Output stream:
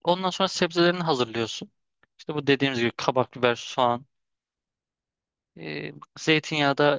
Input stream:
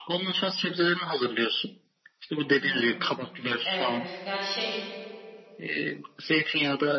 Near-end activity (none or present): present